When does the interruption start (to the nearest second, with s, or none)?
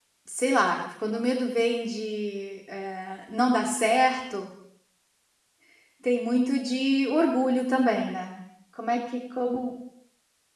none